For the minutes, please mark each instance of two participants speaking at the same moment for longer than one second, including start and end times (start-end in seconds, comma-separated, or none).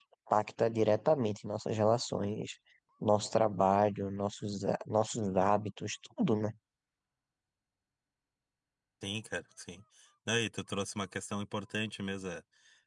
none